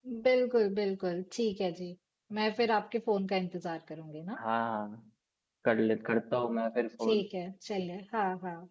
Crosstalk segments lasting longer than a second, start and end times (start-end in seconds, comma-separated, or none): none